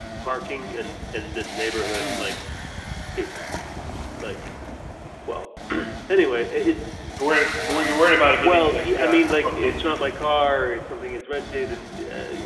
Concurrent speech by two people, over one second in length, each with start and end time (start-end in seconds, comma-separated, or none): 8.4-10.0